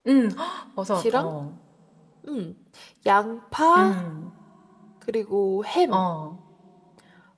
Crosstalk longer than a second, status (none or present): none